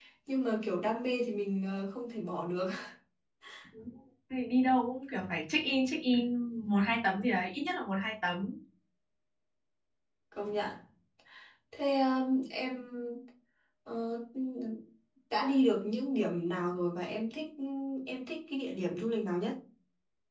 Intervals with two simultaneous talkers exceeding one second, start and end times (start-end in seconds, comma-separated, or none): none